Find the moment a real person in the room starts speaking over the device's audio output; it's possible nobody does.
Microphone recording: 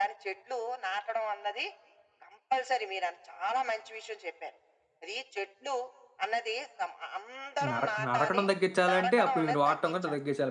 7.7 s

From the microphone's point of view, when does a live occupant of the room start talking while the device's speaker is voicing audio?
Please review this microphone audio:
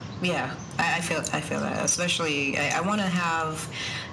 none

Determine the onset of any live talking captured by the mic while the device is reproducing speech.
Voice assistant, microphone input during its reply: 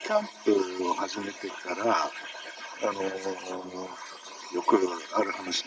none

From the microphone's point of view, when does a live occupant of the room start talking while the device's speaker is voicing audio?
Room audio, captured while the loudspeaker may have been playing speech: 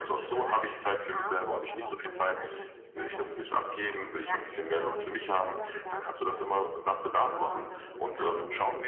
none

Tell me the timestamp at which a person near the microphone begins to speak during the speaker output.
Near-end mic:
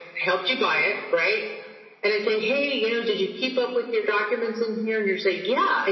none

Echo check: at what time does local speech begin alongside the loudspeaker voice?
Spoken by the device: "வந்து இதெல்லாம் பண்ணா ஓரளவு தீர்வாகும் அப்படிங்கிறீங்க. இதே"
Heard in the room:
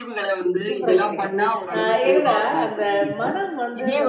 0.7 s

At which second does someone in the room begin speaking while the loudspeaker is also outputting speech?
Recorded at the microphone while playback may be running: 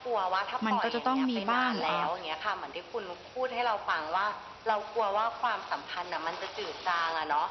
0.6 s

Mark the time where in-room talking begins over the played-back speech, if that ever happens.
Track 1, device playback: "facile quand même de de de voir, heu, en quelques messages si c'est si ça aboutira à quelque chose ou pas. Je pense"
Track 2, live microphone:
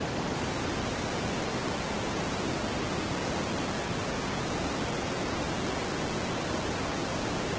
none

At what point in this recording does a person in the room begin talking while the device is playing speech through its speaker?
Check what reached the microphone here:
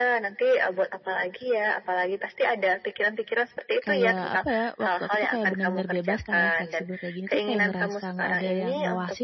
3.8 s

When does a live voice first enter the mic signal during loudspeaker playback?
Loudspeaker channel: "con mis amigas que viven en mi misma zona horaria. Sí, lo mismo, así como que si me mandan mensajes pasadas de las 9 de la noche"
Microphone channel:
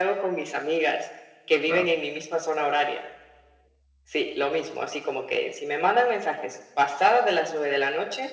1.6 s

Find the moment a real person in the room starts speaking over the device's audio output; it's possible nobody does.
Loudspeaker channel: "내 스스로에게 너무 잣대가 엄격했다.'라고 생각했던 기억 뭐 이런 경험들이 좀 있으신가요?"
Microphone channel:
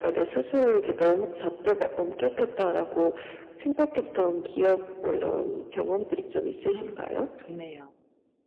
6.7 s

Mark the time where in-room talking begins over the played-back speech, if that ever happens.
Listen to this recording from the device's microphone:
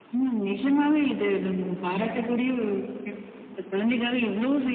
none

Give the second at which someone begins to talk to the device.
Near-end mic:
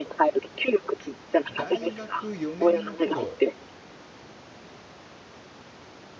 1.5 s

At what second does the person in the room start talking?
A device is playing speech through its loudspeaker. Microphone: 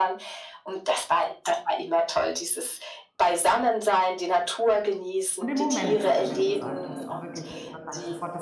5.4 s

